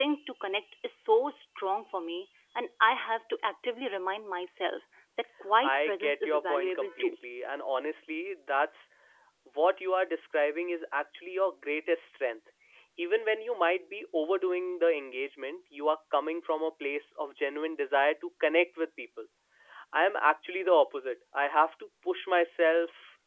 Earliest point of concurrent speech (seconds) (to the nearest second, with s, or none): 6 s